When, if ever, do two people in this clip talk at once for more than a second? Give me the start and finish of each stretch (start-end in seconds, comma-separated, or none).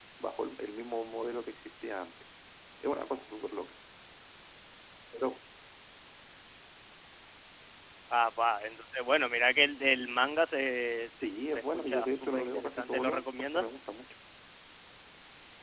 11.5-13.7